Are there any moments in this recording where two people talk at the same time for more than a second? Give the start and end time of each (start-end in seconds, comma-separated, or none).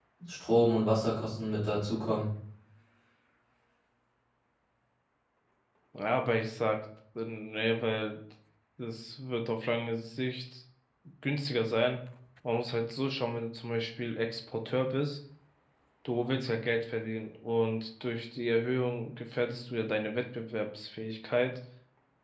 none